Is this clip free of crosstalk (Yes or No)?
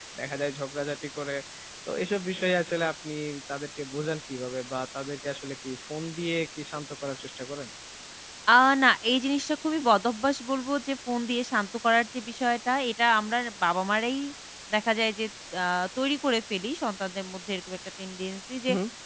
Yes